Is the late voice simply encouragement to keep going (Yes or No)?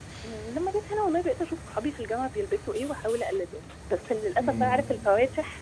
Yes